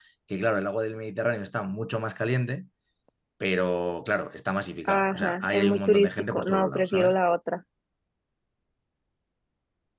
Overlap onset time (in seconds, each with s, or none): 4.8 s